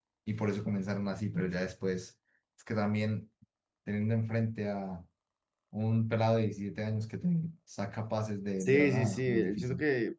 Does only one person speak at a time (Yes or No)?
No